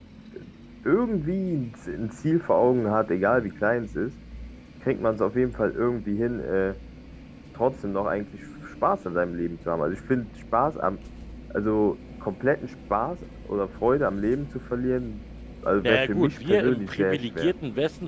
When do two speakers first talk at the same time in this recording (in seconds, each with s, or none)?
15.8 s